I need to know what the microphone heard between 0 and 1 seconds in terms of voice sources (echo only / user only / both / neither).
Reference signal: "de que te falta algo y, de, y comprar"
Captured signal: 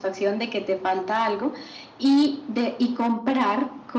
echo only